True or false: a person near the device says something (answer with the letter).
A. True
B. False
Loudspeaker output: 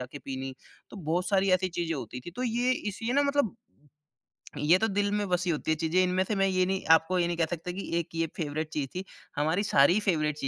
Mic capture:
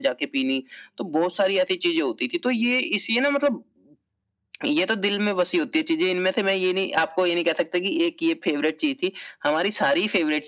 B